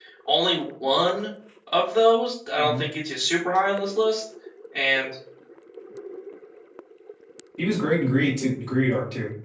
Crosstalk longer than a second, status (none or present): none